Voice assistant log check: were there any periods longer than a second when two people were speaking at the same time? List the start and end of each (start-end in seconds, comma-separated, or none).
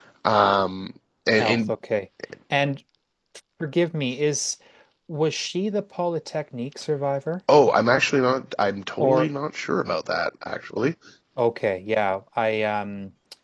none